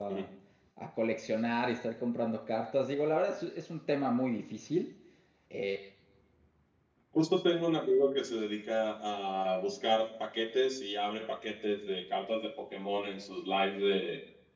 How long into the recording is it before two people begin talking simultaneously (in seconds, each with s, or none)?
none